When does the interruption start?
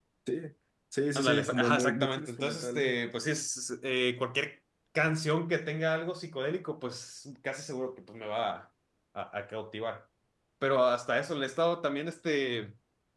1.1 s

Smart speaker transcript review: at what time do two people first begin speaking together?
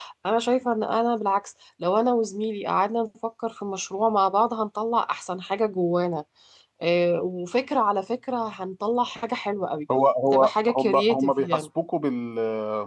10.3 s

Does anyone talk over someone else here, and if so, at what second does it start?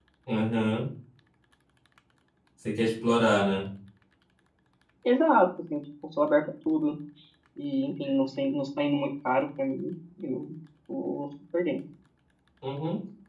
none

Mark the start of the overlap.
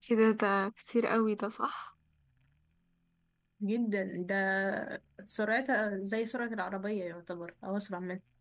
none

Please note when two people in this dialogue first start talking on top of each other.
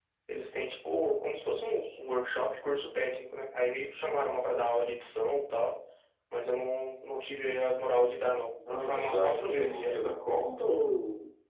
8.6 s

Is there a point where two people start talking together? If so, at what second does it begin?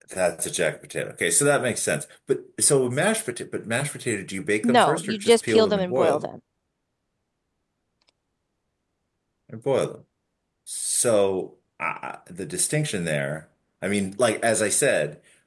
4.6 s

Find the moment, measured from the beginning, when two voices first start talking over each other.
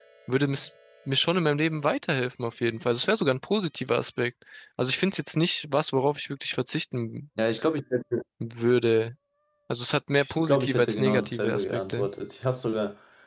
10.2 s

